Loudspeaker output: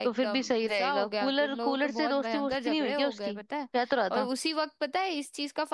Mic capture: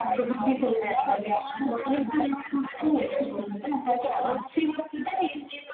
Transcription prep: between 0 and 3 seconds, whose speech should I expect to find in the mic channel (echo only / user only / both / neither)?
echo only